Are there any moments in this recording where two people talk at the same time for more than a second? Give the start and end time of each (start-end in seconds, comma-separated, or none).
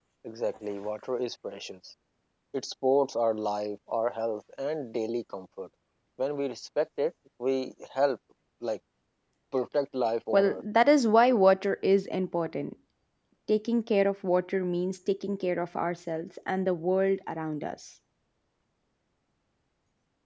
none